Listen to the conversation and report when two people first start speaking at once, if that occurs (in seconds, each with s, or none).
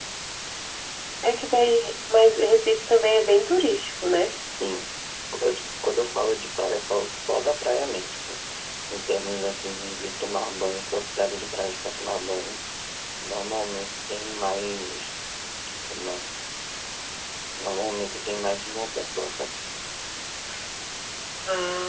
none